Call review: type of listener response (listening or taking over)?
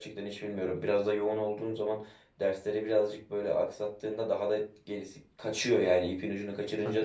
taking over